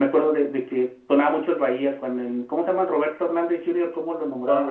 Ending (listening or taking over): taking over